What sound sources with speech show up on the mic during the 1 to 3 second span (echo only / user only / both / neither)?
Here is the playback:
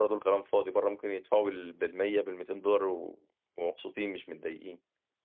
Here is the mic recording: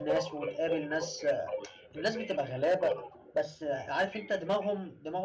both